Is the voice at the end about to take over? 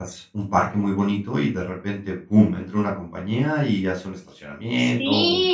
Yes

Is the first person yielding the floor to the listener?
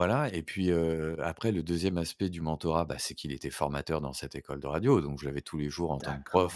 No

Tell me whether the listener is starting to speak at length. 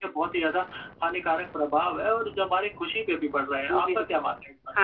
Yes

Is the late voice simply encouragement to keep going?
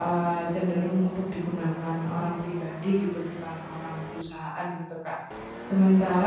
Yes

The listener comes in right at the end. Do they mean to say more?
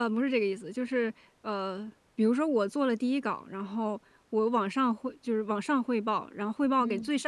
No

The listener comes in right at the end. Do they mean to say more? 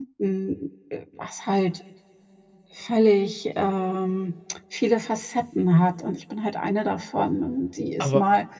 No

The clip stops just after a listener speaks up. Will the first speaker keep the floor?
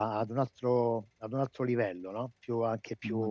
Yes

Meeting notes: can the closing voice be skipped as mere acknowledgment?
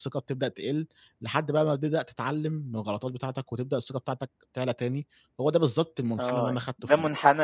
No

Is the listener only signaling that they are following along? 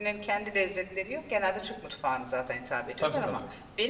Yes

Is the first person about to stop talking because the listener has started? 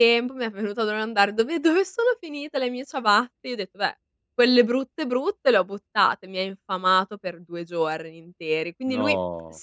No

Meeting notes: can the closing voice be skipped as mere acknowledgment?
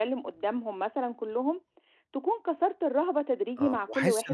No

